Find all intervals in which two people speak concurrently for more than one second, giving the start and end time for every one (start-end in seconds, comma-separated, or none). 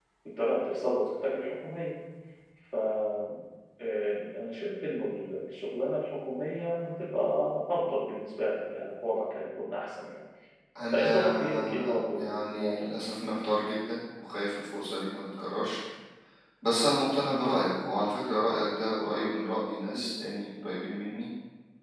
10.9-13.0